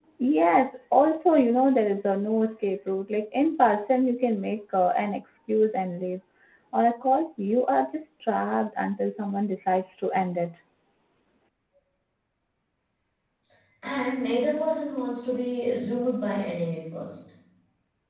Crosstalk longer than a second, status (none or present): none